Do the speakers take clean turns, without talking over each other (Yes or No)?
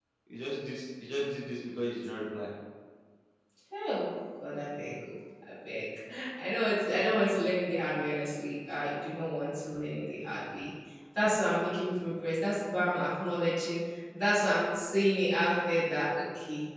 Yes